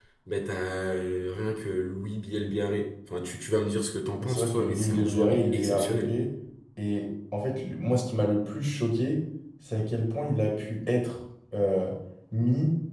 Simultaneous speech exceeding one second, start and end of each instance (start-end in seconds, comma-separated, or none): 4.2-6.1